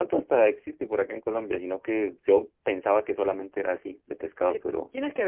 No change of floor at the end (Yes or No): No